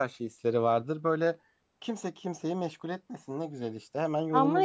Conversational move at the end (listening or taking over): taking over